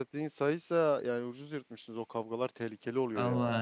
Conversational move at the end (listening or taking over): taking over